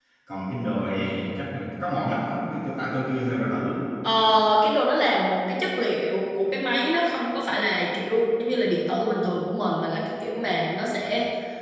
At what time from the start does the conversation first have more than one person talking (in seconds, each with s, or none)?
none